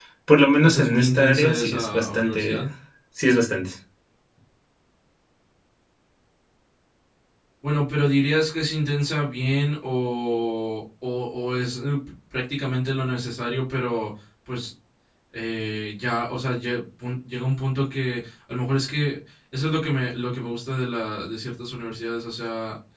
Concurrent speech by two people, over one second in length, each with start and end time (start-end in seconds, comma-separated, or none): 0.6-2.6